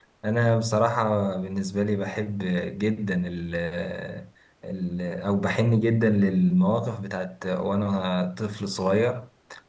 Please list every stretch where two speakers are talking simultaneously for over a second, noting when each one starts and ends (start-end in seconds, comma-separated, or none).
none